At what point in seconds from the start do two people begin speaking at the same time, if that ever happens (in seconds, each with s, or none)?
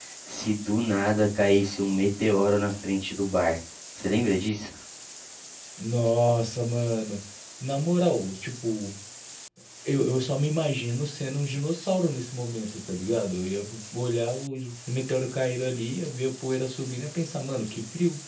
none